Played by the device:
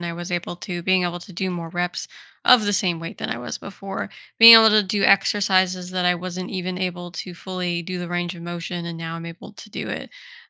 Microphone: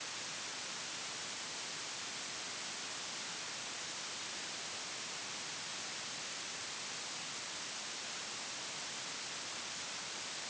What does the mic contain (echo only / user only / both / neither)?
neither